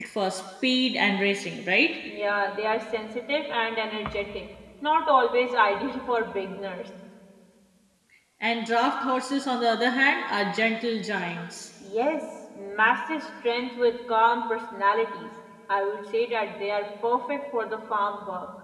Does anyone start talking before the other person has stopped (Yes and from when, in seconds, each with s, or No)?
No